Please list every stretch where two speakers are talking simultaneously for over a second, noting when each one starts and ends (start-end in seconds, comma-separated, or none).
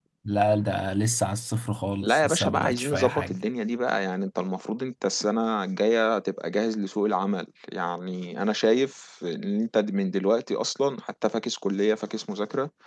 2.0-3.4